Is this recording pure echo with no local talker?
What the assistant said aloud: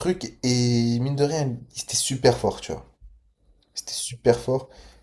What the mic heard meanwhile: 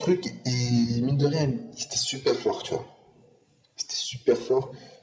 Yes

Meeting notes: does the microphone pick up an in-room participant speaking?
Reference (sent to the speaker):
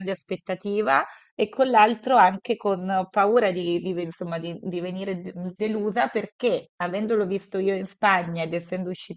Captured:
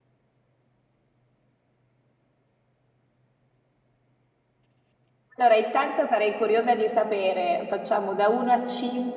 Yes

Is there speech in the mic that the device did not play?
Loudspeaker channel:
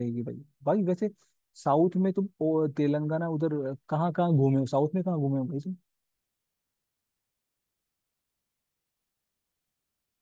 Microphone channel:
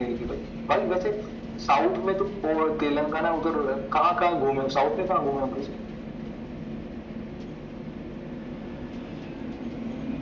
No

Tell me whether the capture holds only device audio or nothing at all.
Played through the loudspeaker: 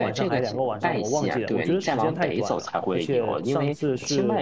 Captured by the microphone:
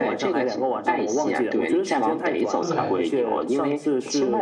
No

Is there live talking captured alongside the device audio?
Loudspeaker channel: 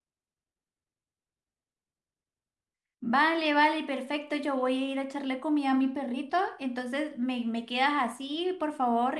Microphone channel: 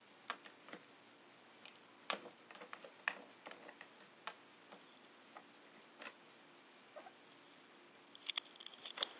No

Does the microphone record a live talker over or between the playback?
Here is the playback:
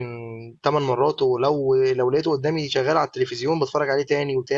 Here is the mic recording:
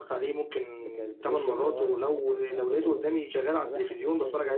Yes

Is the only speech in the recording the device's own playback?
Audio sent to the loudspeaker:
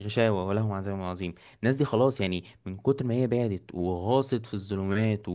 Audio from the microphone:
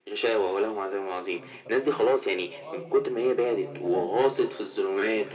No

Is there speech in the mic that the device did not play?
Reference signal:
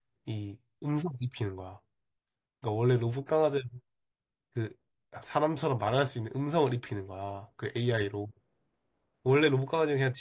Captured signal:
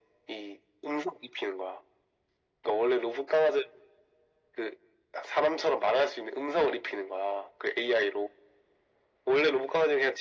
No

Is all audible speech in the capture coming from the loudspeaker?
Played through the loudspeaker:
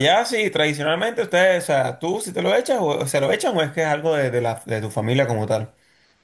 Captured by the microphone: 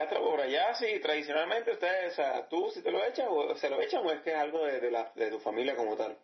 Yes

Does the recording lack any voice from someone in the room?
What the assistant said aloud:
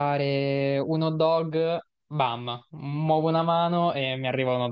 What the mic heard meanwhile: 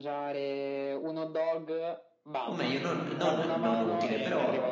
No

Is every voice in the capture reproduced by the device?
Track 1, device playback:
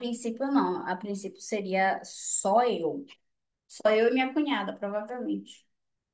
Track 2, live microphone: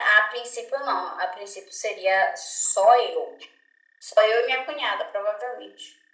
Yes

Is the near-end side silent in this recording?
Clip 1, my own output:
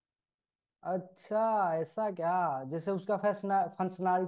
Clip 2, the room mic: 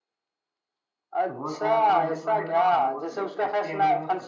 No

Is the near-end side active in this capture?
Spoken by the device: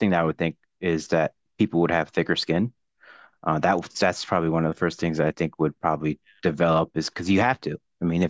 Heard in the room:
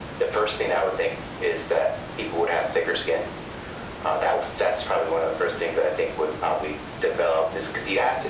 No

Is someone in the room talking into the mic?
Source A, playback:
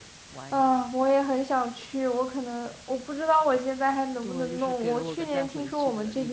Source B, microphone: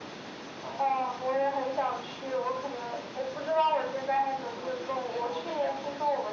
No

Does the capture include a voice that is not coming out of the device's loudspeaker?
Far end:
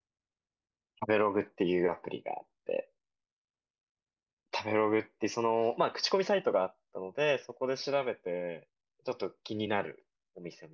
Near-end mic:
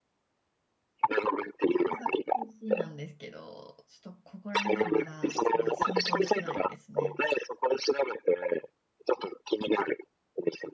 Yes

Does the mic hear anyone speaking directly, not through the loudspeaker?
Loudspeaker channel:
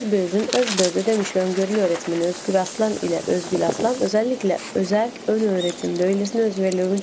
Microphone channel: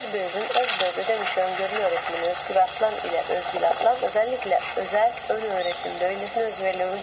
No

